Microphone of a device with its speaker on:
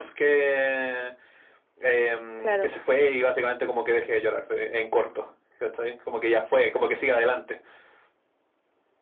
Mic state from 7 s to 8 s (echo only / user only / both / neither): echo only